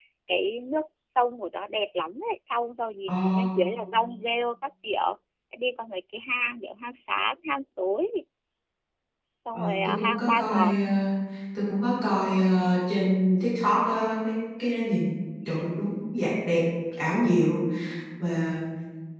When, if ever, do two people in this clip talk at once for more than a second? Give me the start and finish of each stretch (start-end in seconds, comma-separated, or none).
9.5-10.7